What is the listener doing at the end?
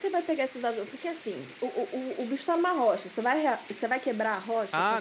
taking over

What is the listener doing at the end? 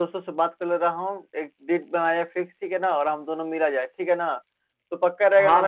taking over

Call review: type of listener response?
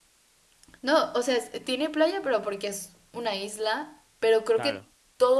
listening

